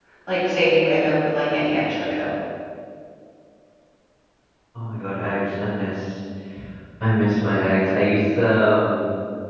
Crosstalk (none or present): none